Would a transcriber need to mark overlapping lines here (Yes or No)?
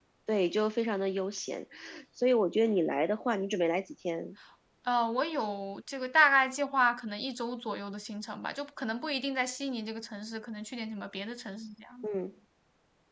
No